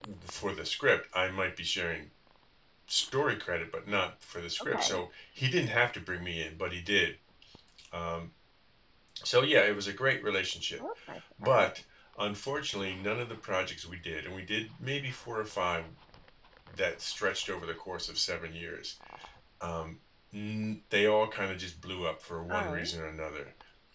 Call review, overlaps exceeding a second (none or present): none